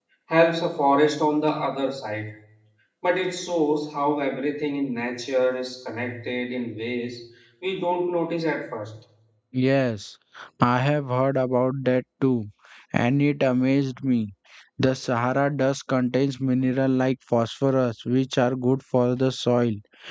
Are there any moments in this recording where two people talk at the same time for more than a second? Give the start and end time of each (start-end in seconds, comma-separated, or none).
none